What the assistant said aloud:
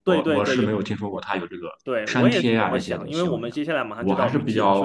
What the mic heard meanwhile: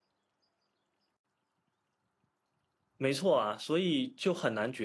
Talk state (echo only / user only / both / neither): user only